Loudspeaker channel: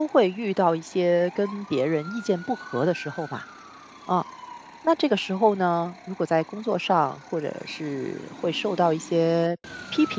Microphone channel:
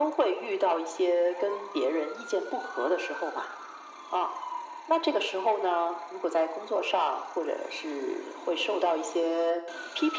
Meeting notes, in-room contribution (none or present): none